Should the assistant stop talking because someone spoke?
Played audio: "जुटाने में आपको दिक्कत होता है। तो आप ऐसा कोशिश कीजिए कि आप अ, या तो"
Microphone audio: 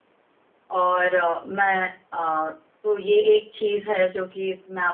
Yes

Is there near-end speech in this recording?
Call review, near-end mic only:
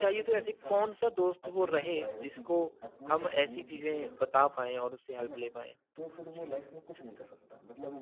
Yes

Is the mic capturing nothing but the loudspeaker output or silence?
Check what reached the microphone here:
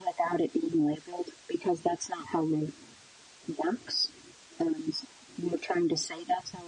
Yes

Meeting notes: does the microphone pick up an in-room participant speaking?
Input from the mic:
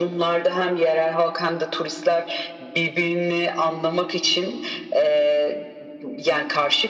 No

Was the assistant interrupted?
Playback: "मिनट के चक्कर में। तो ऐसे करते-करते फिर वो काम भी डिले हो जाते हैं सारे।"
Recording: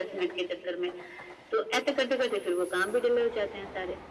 No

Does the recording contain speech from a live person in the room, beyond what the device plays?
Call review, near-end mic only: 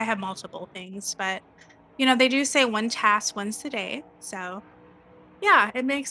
Yes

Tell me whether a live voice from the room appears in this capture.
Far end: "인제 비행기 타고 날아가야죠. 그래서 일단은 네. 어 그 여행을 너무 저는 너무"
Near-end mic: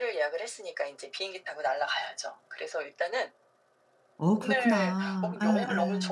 Yes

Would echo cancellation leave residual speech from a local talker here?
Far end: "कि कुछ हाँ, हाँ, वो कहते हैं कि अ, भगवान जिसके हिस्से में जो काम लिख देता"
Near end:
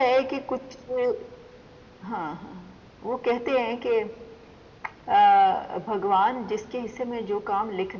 No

